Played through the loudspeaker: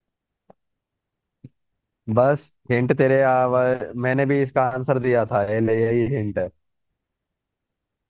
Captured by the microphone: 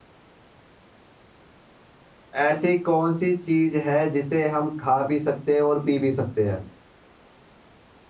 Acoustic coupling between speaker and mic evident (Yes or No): No